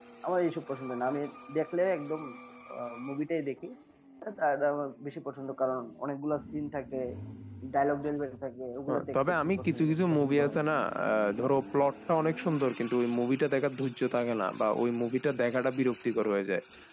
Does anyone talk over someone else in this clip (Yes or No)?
Yes